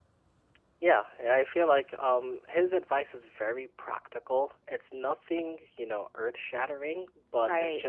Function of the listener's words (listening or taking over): listening